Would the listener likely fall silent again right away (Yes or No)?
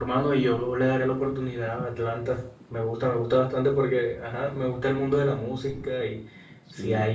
Yes